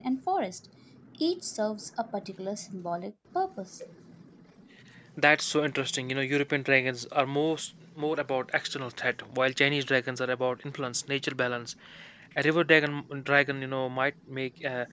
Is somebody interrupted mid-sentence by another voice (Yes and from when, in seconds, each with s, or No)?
No